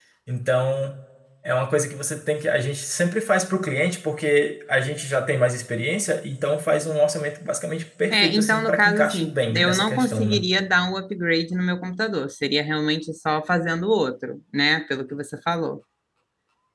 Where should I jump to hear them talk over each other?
8.1 s

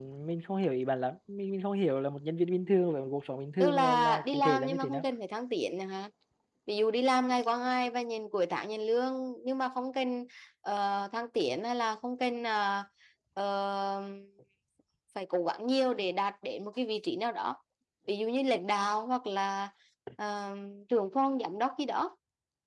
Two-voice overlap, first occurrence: 3.6 s

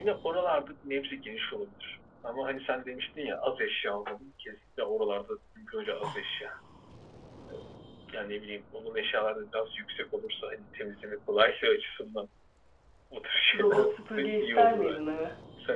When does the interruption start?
13.5 s

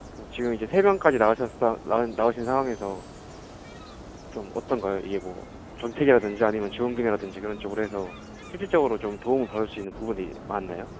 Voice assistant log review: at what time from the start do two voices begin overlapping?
none

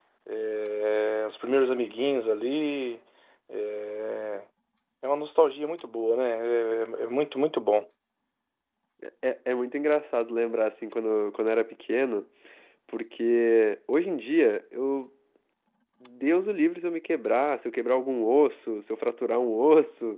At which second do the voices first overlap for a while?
none

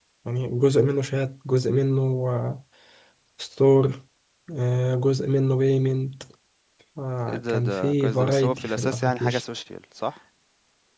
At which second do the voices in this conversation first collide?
7.5 s

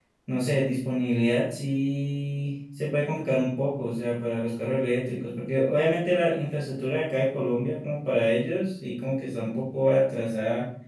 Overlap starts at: none

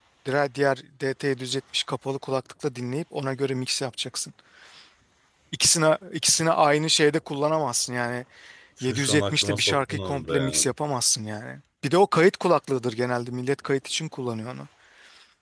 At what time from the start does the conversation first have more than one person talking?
8.8 s

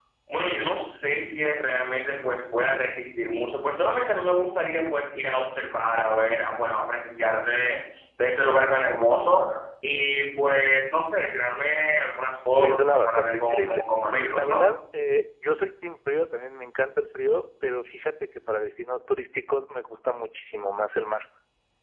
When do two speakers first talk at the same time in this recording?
12.6 s

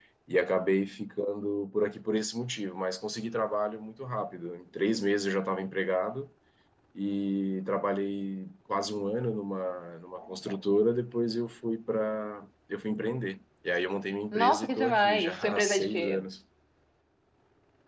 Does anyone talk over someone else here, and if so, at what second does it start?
14.3 s

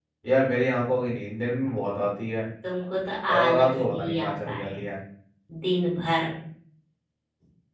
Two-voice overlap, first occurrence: 3.3 s

